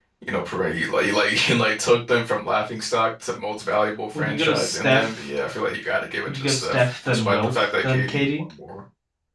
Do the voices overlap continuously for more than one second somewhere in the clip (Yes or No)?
Yes